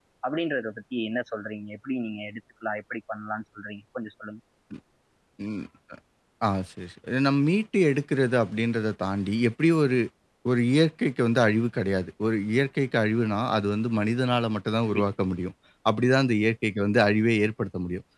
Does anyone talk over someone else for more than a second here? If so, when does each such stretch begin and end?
none

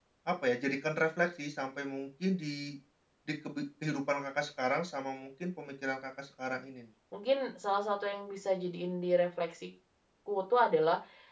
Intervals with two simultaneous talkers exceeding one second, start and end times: none

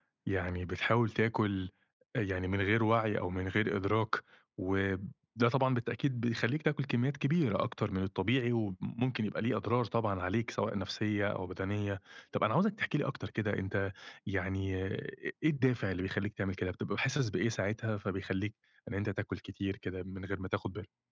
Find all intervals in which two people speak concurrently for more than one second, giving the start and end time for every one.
none

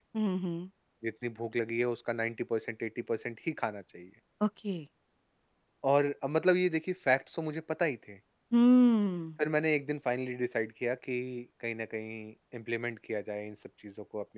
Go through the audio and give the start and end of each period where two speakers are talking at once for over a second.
none

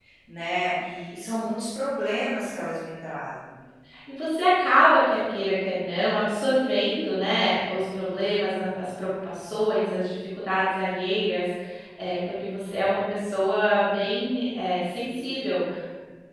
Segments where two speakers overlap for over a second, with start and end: none

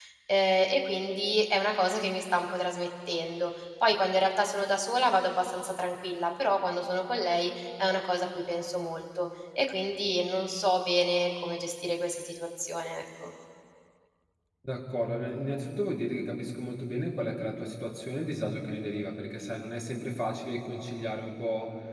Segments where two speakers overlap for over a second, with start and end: none

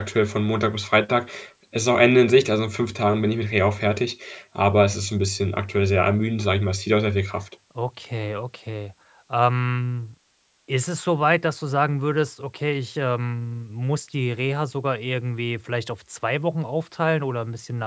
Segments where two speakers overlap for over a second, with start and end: none

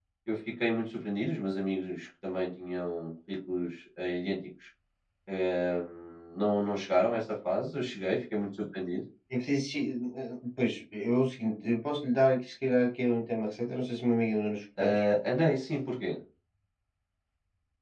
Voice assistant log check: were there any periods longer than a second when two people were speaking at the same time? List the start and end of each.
none

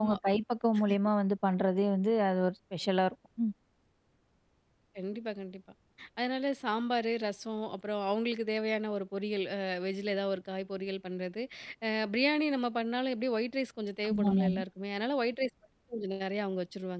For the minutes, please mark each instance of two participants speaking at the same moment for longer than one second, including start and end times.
none

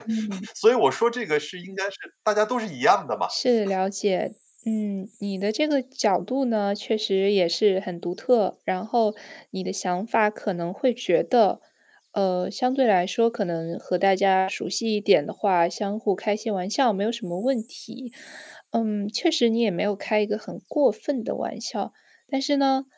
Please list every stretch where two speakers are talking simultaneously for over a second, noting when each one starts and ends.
none

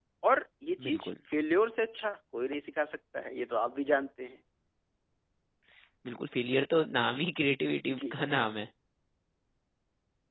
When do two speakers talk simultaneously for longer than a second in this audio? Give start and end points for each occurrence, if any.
none

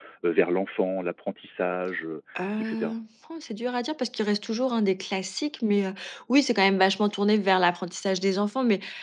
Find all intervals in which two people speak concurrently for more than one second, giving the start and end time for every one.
none

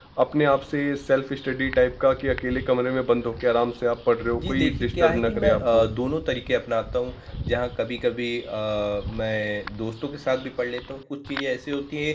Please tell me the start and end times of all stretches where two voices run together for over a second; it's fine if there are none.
4.4-5.9

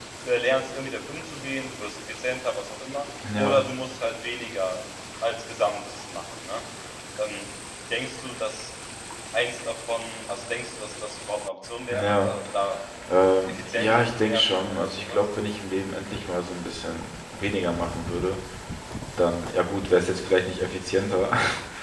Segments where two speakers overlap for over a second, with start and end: 13.4-15.2

